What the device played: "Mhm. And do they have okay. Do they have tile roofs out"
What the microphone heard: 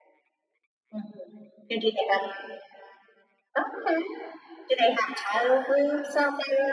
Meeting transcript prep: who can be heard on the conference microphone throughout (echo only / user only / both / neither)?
echo only